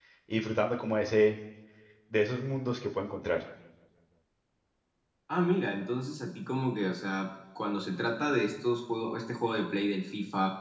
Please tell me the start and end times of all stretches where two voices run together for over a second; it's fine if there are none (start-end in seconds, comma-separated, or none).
none